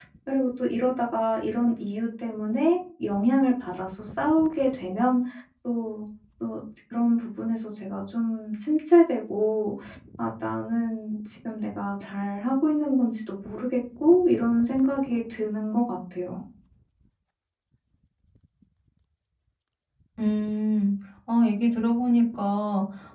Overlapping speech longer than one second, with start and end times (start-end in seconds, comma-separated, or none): none